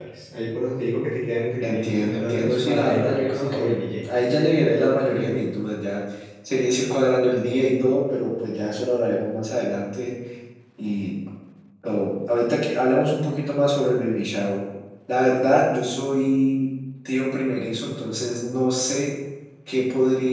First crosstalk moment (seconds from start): 1.6 s

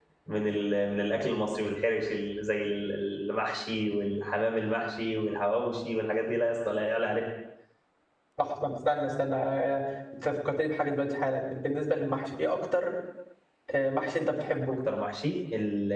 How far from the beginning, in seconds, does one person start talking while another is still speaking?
none

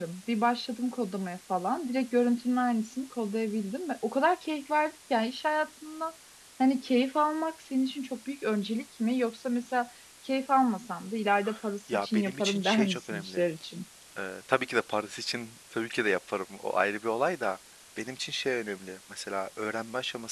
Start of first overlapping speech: 11.9 s

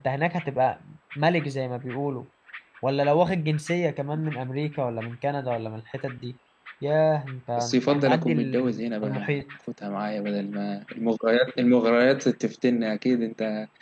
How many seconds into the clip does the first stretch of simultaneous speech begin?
7.6 s

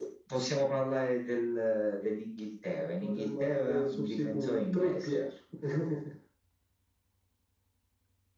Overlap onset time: 2.7 s

